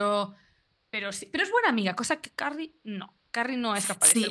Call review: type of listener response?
taking over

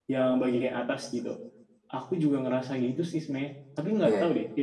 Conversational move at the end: listening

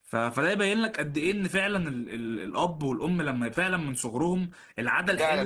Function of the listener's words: taking over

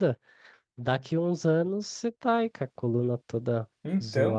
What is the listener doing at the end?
listening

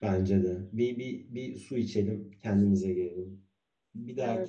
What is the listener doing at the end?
listening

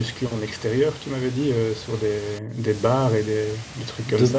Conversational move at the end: taking over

